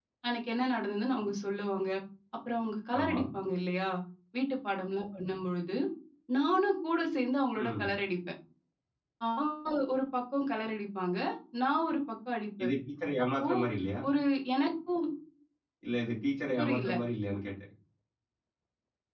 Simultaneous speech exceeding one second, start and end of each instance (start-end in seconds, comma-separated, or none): none